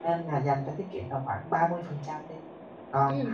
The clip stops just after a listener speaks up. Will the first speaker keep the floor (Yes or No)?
Yes